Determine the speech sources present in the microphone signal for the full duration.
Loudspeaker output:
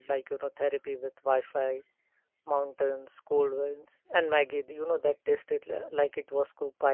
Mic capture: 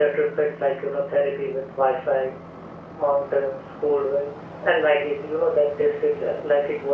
echo only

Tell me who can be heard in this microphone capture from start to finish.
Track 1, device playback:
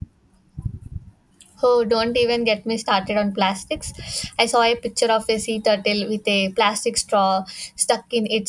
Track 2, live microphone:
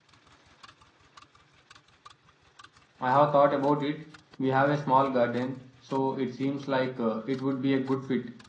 user only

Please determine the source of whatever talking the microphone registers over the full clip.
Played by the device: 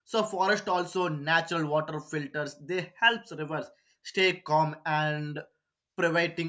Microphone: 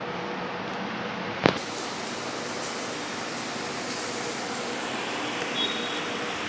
neither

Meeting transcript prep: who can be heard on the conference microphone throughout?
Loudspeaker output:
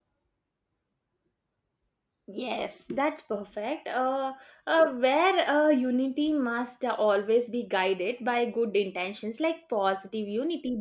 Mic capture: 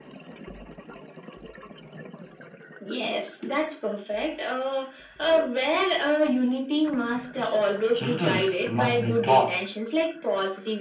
both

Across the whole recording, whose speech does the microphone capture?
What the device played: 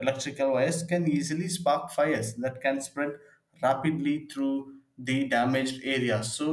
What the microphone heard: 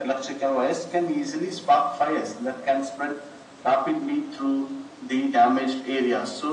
echo only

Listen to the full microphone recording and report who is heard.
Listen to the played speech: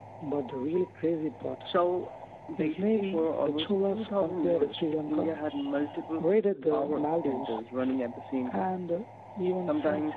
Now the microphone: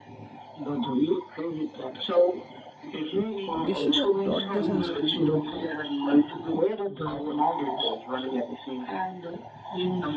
both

